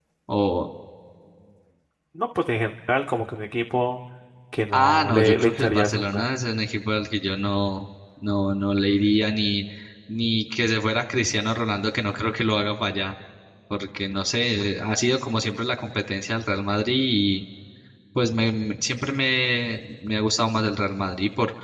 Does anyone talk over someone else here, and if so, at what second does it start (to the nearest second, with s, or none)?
5 s